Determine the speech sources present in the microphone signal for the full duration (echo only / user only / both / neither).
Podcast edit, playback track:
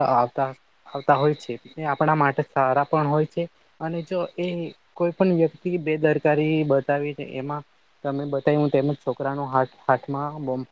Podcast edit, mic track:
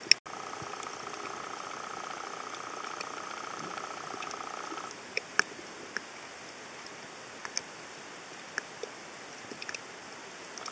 neither